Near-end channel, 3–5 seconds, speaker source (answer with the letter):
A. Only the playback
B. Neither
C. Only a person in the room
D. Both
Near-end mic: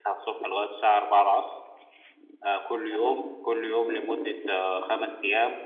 C